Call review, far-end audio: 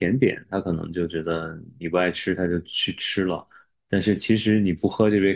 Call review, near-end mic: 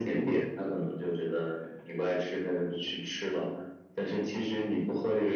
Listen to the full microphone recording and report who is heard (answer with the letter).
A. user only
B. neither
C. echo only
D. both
C